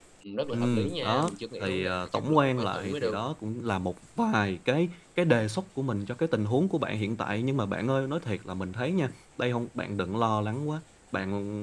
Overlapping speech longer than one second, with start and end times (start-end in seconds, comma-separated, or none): 0.5-3.2